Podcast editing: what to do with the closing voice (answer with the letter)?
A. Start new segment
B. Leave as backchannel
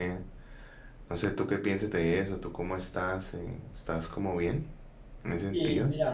A